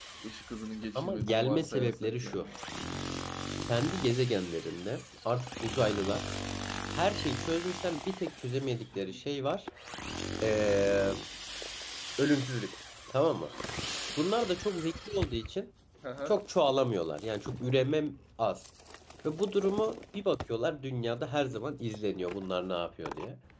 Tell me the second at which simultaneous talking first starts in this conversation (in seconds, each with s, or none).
0.9 s